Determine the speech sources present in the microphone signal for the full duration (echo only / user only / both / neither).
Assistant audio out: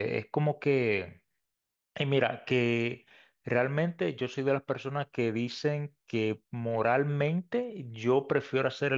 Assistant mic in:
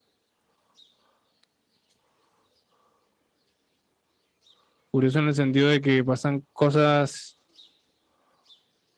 user only